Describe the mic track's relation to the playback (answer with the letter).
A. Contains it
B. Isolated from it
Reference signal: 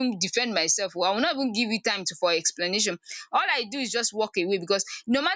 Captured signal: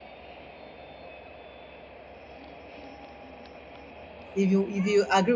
B